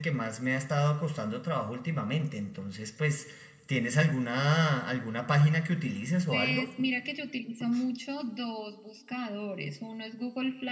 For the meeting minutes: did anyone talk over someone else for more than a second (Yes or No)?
No